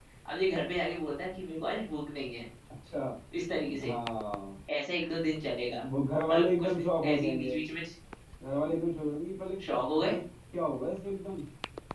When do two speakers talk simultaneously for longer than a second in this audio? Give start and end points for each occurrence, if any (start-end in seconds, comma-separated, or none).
6.3-7.6